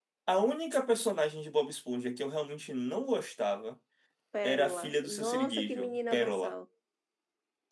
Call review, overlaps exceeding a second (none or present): present